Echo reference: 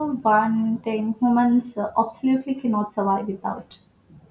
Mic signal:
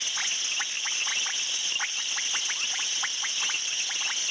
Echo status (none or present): none